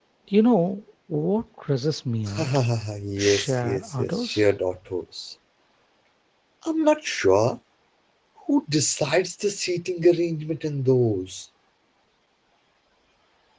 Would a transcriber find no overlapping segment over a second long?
No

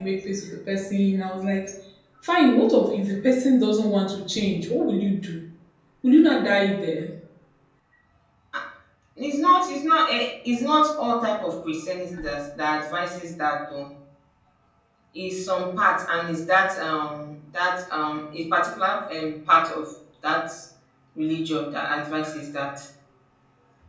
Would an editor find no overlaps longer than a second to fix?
Yes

